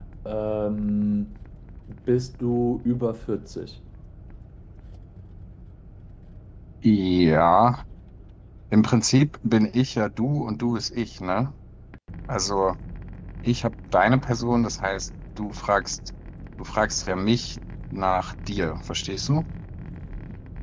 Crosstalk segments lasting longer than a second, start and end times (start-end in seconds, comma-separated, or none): none